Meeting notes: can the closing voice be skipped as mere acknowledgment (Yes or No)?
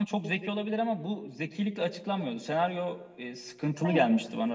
Yes